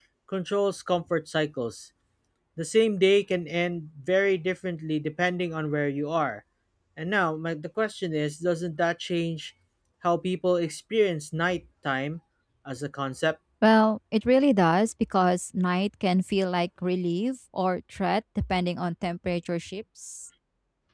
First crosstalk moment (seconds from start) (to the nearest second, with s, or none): none